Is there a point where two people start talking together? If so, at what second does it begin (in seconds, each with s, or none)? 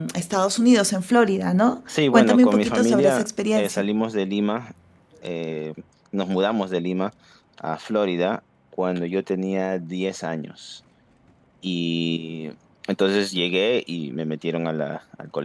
1.9 s